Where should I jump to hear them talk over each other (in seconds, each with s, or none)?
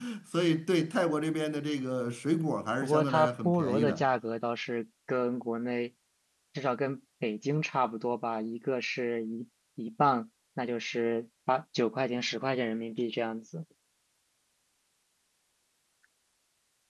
2.8 s